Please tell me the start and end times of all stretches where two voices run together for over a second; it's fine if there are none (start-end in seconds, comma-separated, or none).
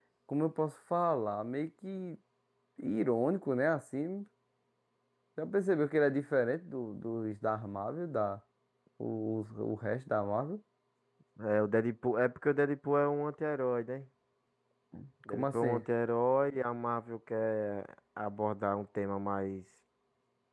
none